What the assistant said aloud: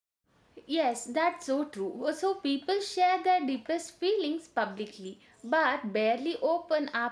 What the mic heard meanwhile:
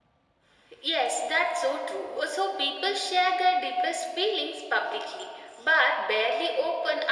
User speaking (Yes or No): No